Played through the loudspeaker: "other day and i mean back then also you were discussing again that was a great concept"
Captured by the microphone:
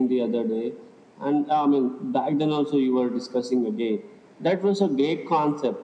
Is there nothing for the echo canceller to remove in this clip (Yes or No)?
No